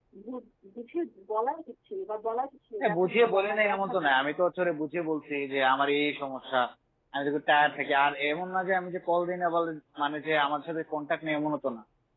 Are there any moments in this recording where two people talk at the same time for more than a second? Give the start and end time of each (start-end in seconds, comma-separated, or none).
2.8-4.1